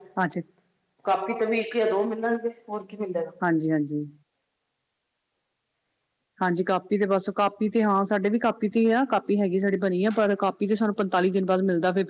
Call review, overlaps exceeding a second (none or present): none